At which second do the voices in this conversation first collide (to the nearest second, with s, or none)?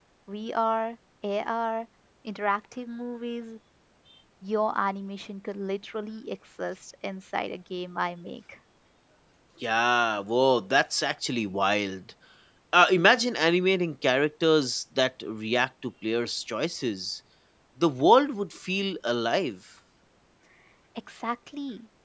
none